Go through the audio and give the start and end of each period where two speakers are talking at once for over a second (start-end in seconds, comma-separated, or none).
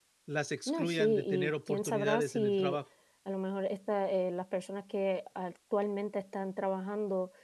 0.7-2.8